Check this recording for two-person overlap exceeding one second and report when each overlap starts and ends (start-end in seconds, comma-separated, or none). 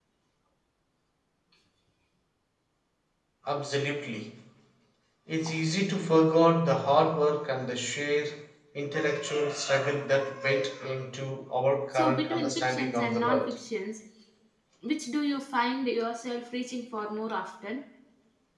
11.9-13.5